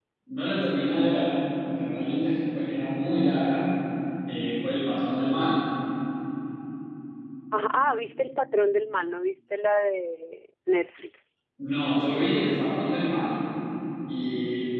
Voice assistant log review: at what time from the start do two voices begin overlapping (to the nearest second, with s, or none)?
none